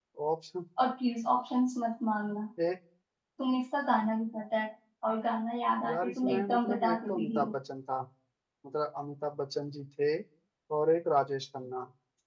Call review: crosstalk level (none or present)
present